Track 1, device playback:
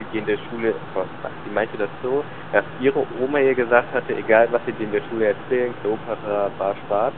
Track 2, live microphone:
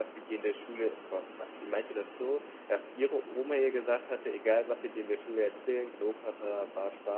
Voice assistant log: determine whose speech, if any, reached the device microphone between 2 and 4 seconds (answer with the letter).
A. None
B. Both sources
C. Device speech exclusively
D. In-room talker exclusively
C